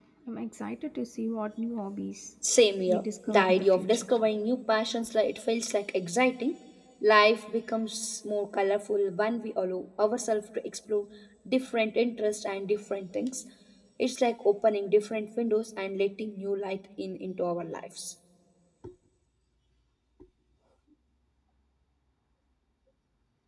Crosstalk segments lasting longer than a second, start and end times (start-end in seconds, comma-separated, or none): 2.9-4.1